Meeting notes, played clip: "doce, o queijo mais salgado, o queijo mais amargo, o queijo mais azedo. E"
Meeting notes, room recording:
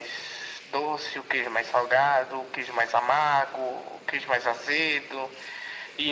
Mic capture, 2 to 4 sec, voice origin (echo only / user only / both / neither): echo only